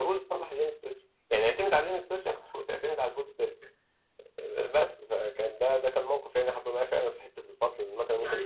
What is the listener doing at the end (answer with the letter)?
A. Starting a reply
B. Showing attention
A